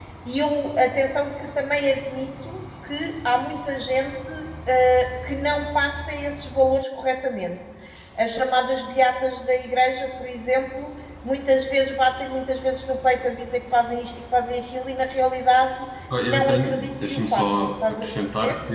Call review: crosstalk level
present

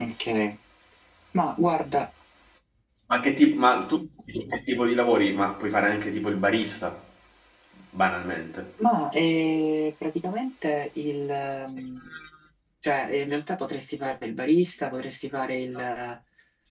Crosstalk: none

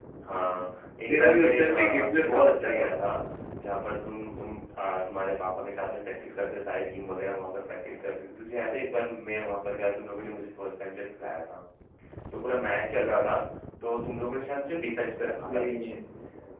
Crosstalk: present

